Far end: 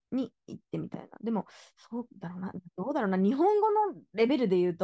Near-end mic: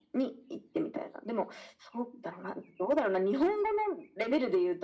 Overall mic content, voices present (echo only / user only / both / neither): echo only